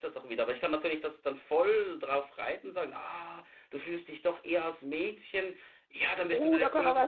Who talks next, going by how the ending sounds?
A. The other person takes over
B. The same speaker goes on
A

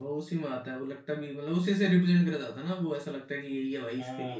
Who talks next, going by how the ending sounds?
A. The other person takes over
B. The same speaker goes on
A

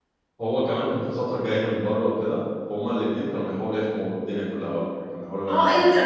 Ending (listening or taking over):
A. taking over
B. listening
A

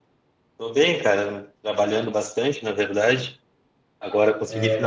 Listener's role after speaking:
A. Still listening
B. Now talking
A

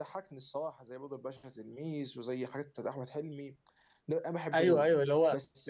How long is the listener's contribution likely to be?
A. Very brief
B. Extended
B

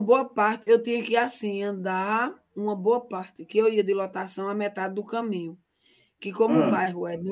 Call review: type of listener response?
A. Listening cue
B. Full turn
A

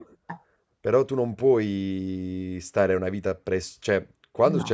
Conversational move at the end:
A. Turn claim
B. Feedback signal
B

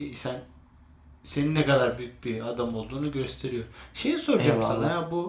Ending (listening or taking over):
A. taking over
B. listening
B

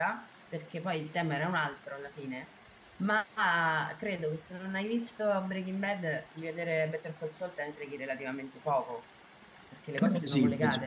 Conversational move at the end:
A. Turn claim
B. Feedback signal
A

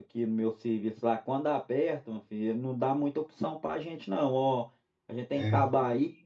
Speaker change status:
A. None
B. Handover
A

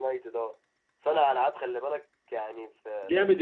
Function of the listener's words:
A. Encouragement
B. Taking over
B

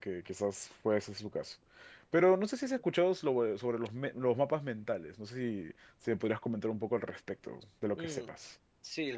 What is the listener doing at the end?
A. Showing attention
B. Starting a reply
B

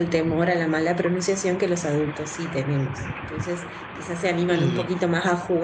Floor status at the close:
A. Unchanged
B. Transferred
A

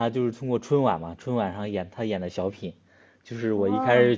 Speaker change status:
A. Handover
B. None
B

